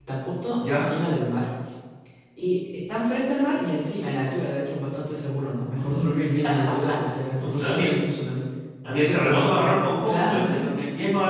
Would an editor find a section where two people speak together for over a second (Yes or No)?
Yes